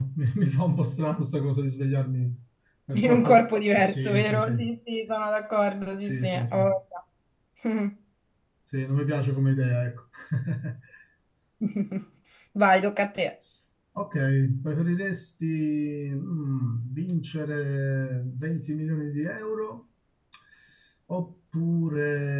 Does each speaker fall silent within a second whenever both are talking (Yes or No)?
No